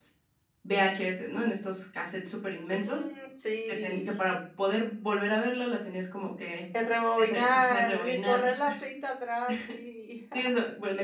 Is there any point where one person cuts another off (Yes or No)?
Yes